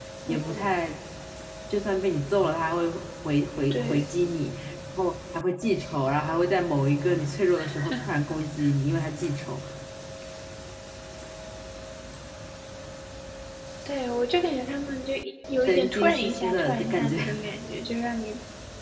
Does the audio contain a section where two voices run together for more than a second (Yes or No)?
Yes